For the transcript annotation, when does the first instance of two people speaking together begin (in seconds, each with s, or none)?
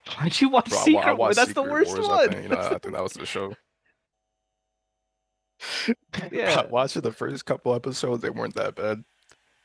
0.7 s